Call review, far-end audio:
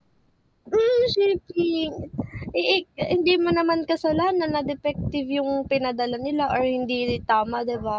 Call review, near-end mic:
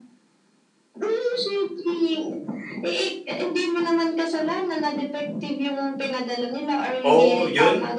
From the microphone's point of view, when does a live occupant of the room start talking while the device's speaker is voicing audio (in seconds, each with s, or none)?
7.0 s